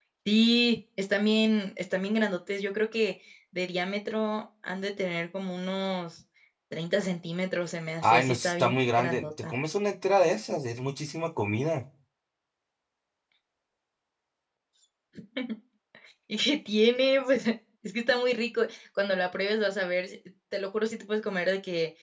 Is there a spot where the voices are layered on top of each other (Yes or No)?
Yes